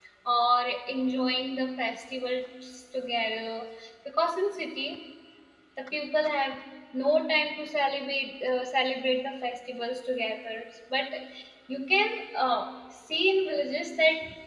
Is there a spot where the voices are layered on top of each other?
No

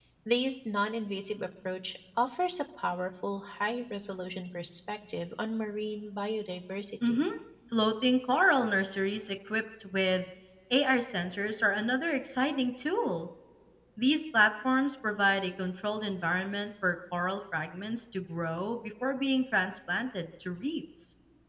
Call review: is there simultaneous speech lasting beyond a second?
No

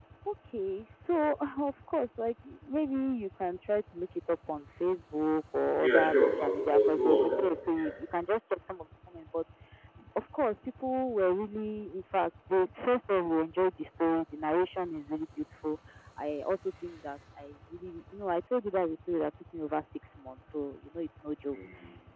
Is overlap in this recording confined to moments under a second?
No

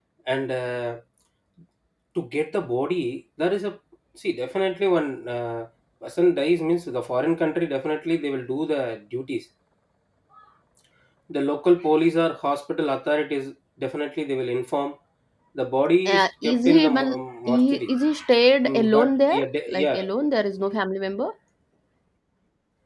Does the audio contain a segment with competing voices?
Yes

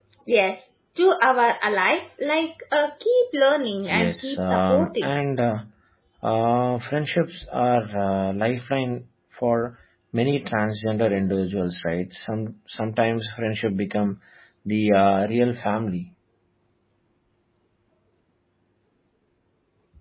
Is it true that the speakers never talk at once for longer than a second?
No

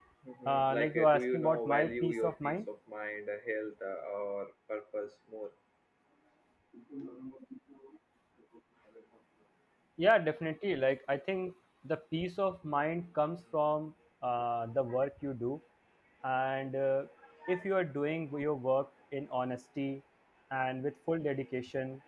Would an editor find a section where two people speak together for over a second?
Yes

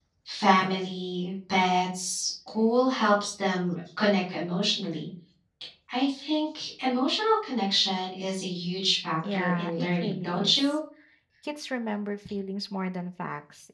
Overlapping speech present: Yes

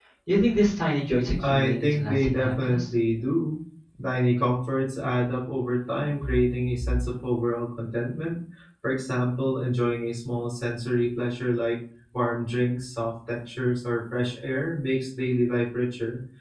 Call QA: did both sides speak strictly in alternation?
No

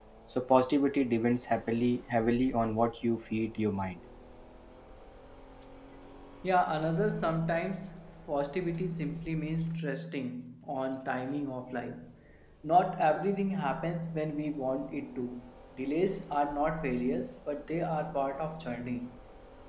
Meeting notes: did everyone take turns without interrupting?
Yes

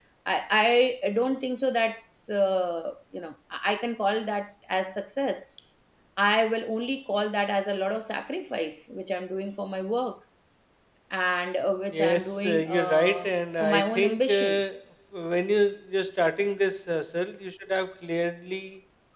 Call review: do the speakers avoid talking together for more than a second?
No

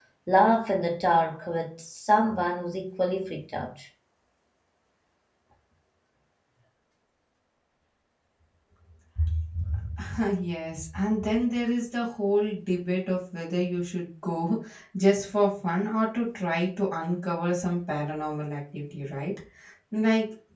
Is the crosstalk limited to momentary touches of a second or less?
Yes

